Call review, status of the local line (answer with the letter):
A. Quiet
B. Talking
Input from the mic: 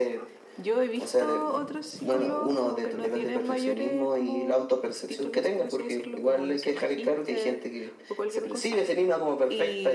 A